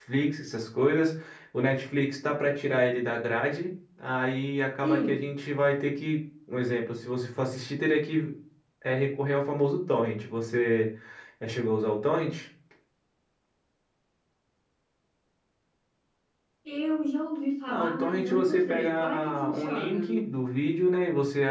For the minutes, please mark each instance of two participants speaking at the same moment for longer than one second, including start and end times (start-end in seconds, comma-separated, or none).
17.7-20.2